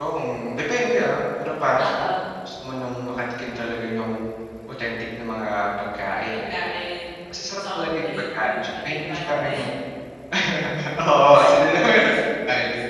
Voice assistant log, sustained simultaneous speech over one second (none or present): present